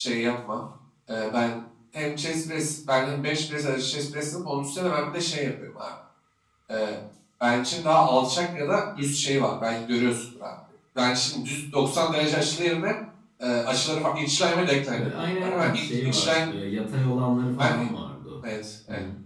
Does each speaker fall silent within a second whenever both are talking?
No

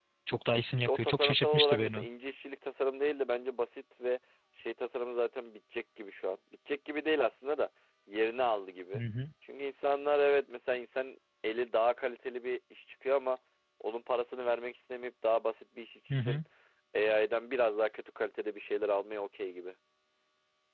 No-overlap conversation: No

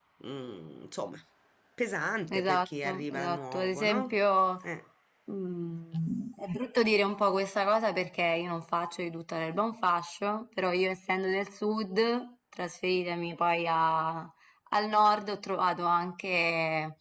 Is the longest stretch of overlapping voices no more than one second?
No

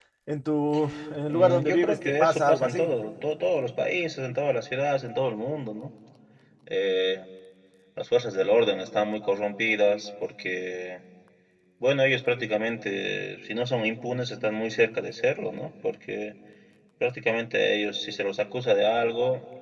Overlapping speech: Yes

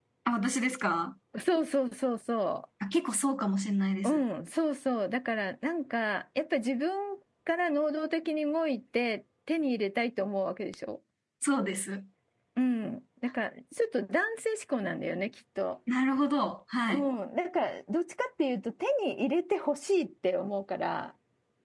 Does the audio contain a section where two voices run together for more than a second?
No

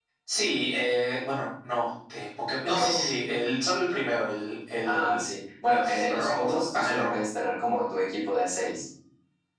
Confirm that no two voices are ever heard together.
No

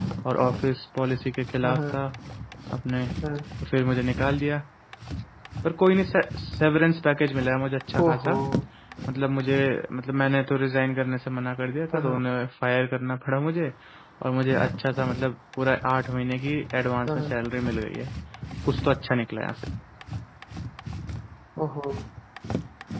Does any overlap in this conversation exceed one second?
No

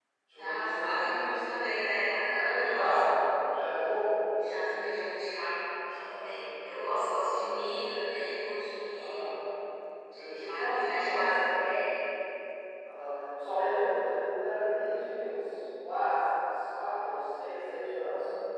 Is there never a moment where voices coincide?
No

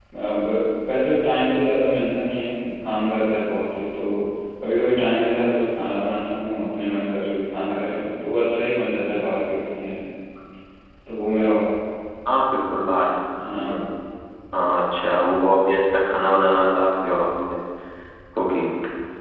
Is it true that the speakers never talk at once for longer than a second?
Yes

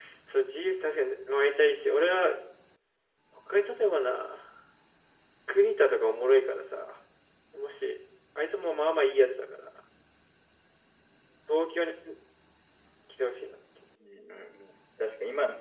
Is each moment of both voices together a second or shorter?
Yes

